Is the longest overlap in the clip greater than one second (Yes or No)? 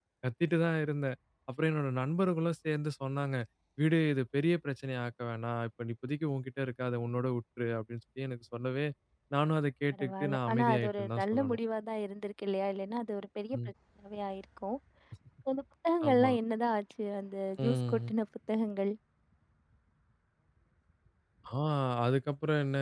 Yes